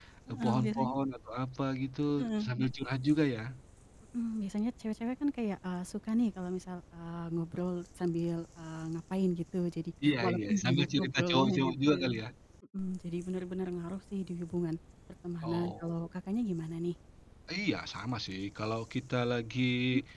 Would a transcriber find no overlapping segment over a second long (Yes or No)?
No